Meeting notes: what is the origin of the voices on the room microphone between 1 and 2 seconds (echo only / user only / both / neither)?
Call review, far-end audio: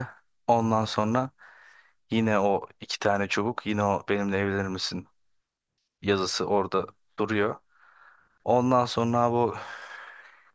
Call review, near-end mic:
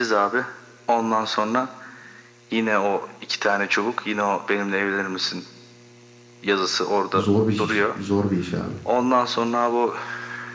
echo only